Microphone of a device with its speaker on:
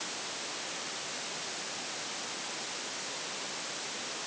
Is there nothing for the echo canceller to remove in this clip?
Yes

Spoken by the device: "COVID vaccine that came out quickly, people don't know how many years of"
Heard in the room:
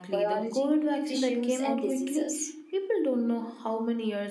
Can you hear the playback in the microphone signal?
Yes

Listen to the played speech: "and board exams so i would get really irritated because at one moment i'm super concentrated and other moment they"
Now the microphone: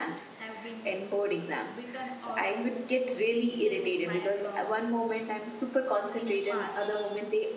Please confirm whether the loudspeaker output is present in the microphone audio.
Yes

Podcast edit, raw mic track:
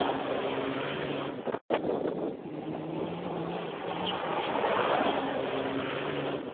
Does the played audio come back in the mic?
No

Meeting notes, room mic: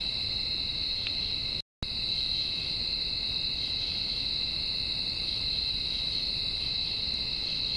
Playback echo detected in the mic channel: No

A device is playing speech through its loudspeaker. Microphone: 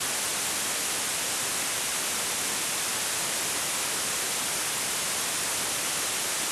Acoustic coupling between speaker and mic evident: No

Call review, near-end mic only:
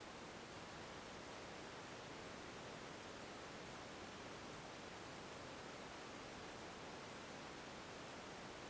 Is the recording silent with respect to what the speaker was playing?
Yes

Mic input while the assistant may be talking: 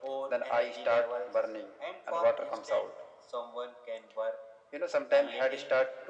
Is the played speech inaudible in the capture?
No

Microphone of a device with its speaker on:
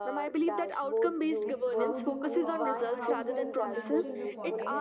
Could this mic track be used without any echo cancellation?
No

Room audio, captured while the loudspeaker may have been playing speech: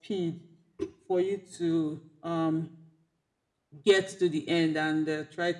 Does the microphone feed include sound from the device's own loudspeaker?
Yes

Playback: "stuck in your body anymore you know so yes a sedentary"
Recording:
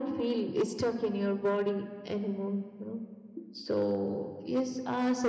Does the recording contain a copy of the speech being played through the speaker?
Yes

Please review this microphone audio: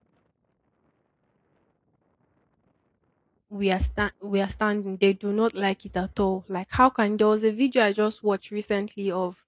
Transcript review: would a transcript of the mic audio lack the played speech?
Yes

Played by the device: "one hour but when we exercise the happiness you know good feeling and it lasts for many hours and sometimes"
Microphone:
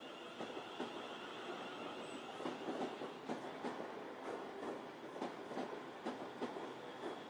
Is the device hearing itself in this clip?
No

